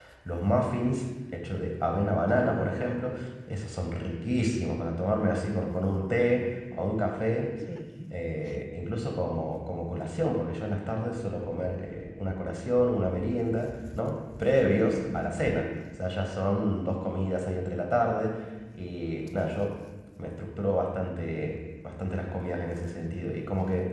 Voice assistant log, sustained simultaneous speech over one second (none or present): none